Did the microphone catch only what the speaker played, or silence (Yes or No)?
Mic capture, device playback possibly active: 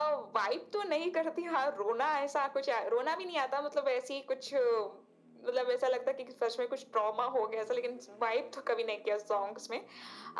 Yes